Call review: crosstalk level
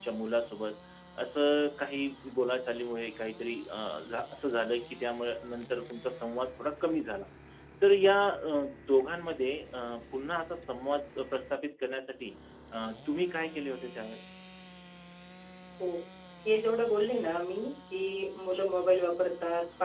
none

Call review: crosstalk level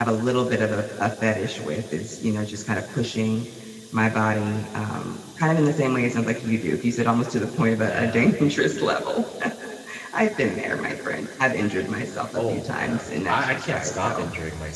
present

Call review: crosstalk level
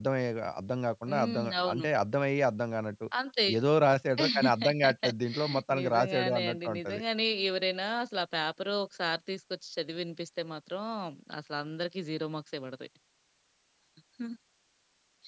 present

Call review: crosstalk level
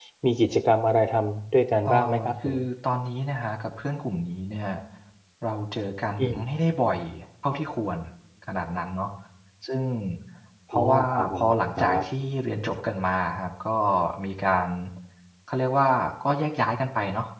present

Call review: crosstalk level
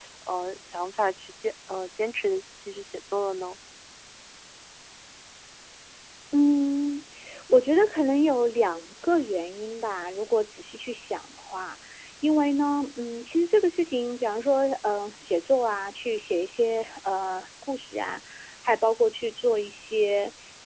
none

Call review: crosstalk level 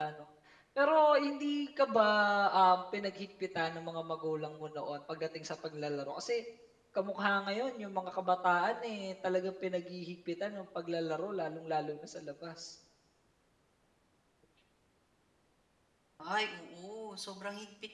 none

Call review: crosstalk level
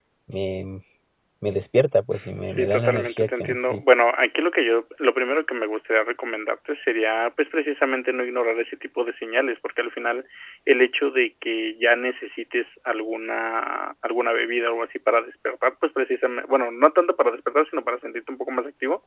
present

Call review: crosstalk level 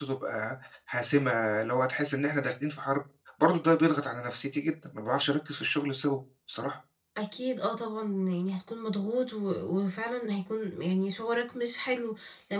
none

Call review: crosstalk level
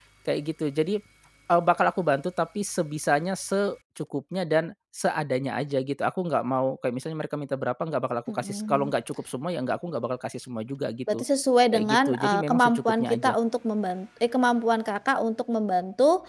present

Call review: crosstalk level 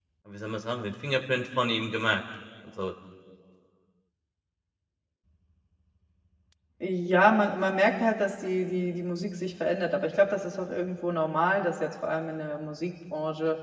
none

